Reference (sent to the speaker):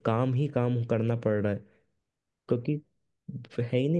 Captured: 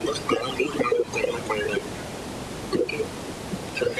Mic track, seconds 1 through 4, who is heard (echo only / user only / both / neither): echo only